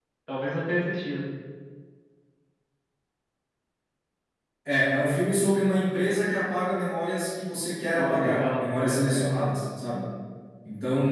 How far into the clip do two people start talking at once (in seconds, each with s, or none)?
8.0 s